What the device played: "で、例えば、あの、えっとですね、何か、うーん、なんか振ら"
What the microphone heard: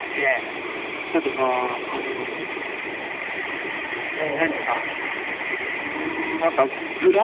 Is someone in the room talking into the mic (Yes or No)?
Yes